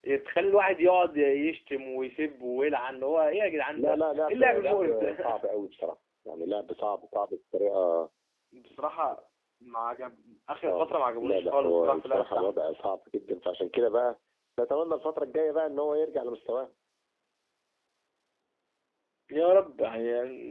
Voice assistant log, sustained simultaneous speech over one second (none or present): present